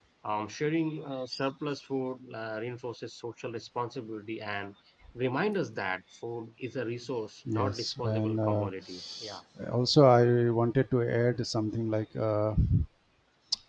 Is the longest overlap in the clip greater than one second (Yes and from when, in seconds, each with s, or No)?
Yes, from 7.5 s